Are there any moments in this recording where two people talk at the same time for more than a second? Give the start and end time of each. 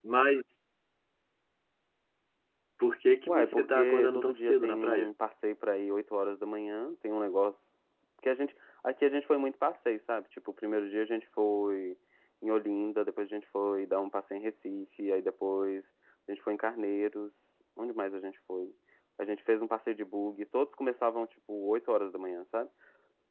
3.3-5.1

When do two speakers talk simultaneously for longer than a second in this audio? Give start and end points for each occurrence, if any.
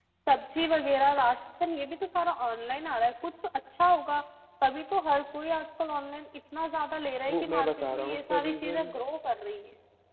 7.3-8.9

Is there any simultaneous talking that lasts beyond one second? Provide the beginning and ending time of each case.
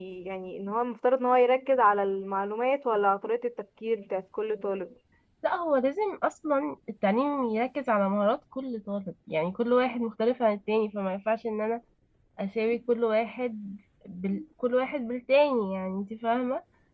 none

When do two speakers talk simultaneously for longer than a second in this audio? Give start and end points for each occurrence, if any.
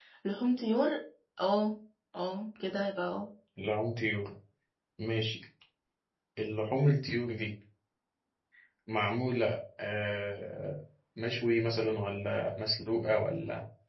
none

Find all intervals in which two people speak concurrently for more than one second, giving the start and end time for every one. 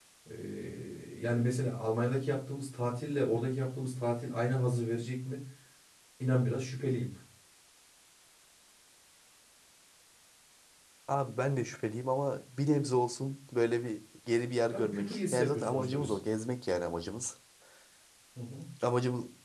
14.7-16.2

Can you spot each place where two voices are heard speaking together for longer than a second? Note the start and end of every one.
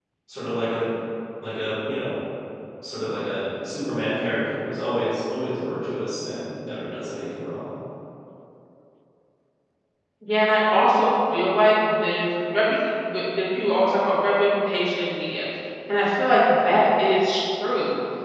none

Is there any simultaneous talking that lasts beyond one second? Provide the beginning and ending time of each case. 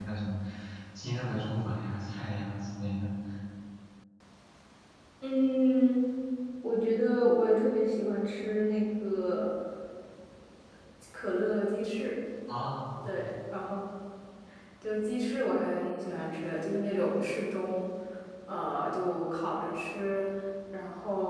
none

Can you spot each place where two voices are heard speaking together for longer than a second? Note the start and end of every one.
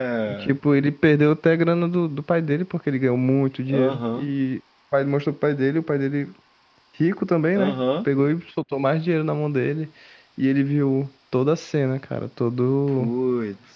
none

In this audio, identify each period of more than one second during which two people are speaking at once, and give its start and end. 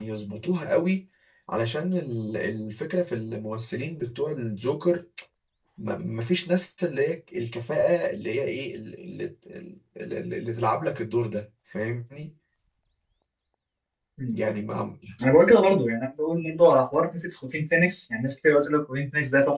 none

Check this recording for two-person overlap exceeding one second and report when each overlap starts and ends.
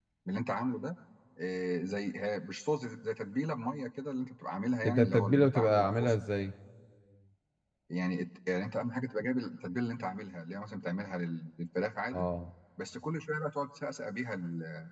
4.8-6.2

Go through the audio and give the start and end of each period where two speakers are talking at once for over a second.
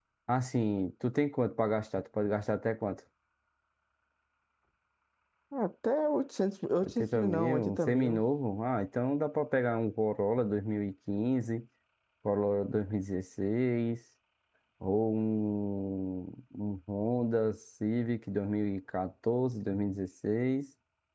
6.8-8.2

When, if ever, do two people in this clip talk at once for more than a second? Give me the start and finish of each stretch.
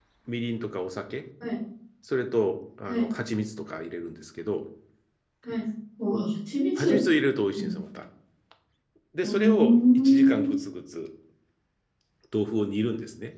9.2-10.5

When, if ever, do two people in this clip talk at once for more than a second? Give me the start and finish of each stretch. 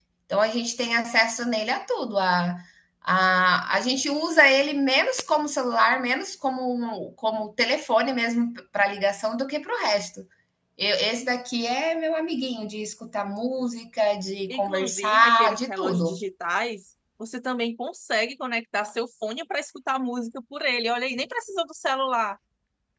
14.5-16.2

